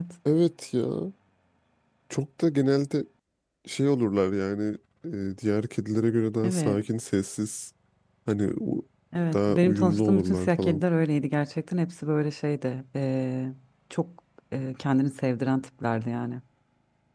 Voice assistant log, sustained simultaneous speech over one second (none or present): present